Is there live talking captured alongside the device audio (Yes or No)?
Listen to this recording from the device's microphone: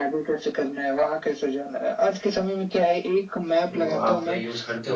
Yes